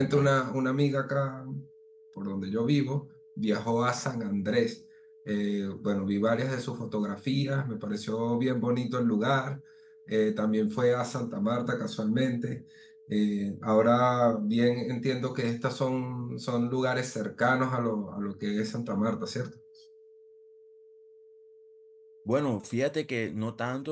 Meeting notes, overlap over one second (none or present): none